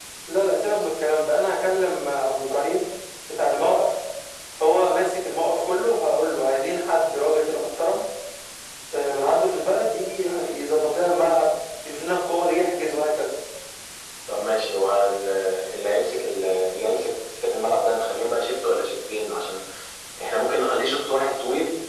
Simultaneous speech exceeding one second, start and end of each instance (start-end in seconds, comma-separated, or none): none